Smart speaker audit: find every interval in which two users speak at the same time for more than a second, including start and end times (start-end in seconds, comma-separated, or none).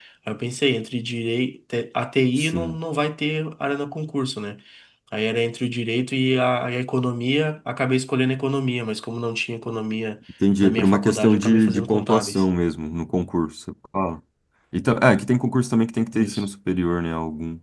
10.6-12.4